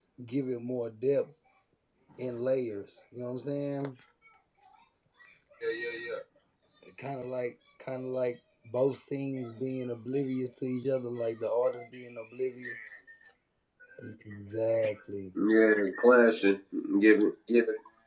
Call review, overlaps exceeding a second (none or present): none